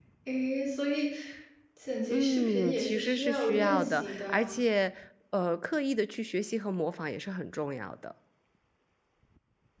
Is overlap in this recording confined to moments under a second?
No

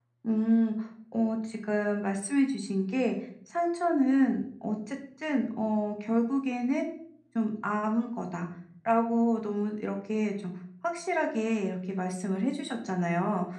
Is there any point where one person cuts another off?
No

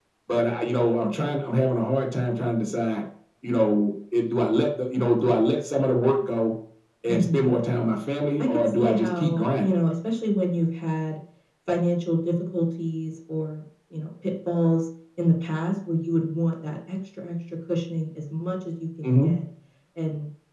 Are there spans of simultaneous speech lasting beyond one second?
Yes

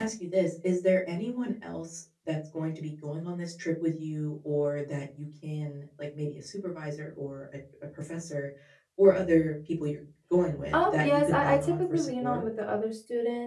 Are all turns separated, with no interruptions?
No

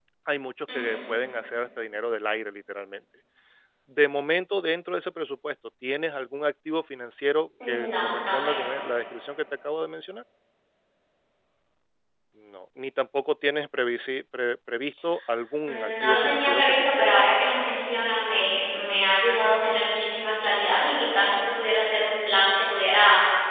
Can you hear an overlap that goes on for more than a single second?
Yes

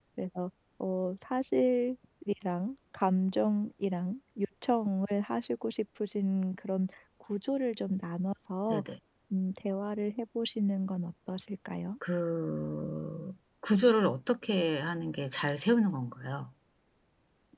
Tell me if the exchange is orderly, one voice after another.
Yes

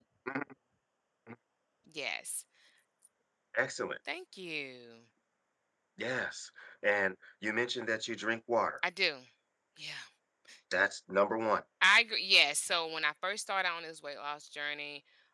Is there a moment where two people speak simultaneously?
No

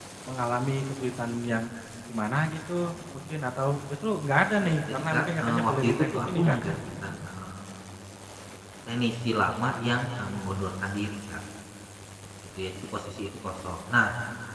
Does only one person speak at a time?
No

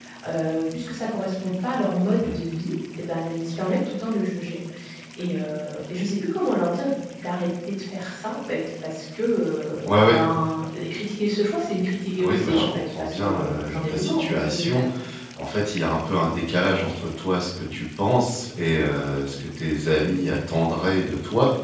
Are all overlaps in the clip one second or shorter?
No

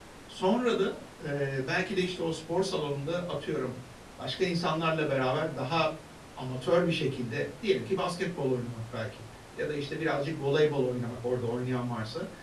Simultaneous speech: No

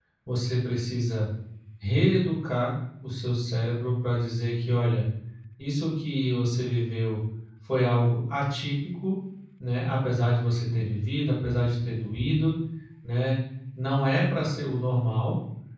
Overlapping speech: No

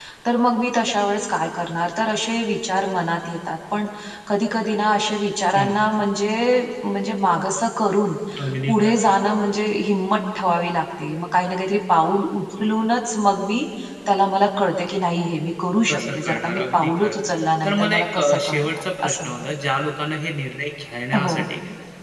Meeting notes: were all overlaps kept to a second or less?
No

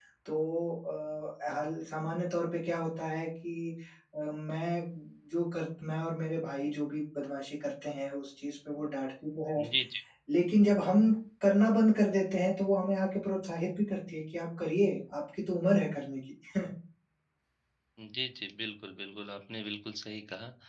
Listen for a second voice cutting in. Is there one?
No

